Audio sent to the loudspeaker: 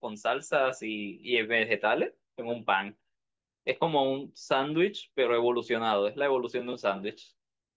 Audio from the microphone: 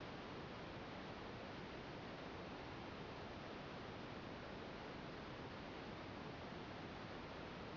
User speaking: No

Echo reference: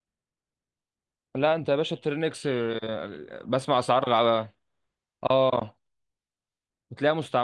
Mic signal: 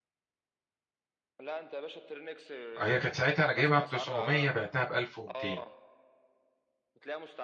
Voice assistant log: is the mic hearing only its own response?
No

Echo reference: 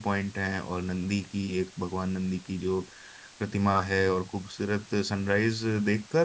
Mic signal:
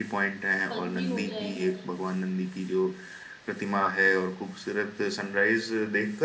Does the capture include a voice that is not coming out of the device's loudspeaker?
Yes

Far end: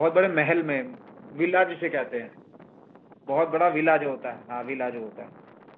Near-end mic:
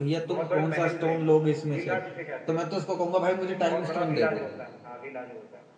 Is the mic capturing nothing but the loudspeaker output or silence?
No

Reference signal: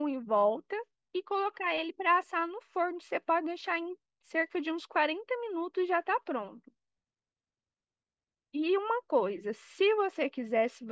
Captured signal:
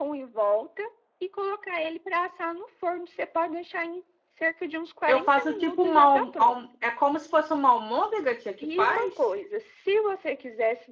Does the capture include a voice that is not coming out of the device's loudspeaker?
Yes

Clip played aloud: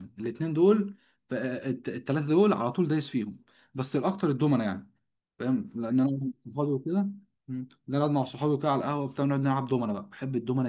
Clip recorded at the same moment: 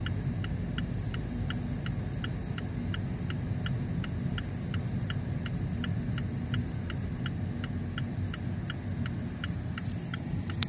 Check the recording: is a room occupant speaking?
No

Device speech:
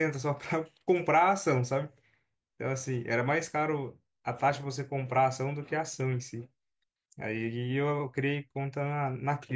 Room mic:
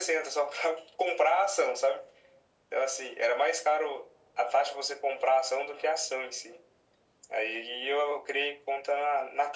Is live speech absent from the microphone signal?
Yes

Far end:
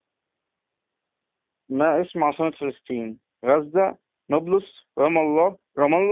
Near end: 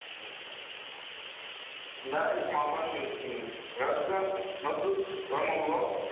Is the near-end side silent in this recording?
Yes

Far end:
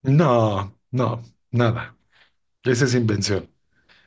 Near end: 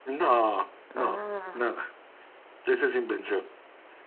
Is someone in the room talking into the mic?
Yes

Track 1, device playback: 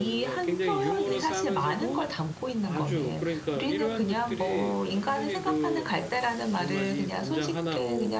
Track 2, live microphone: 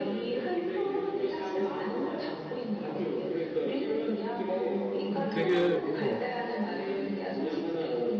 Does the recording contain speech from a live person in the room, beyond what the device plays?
Yes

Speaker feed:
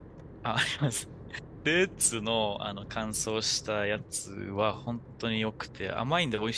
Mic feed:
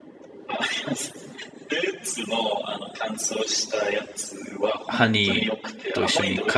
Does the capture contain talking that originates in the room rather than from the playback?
Yes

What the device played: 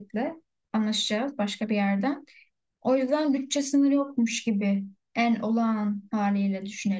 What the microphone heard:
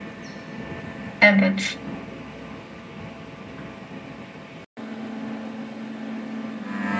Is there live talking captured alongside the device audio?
Yes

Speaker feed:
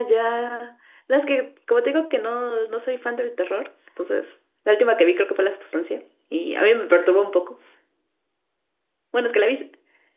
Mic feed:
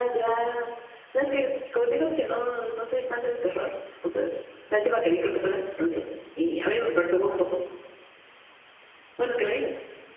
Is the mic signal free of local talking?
Yes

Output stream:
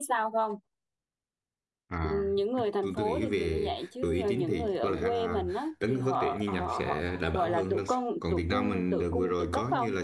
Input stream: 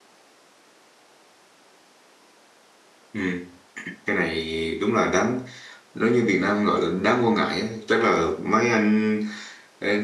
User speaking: Yes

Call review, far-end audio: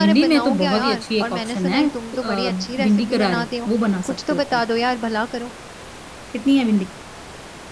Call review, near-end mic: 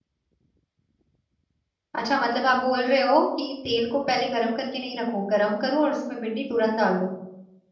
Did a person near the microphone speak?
Yes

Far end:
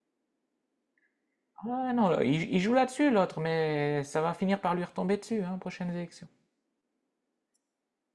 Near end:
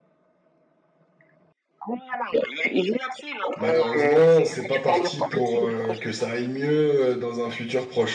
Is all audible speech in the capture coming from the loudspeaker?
No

